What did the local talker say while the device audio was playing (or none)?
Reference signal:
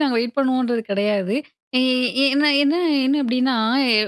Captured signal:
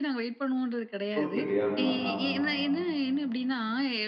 கொலுக்கட்டை. ஆமா, ஆமா, ஆமா.